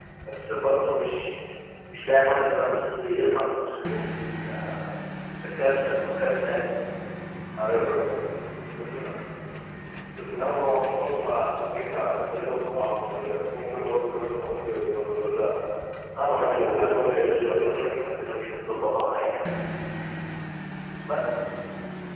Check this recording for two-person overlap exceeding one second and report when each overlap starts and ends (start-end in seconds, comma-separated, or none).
16.2-18.0